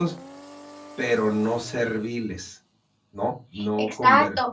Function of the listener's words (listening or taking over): taking over